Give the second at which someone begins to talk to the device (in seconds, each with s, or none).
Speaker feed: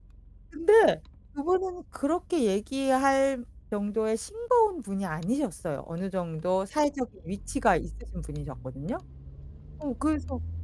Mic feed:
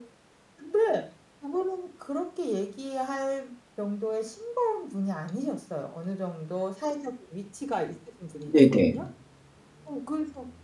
8.4 s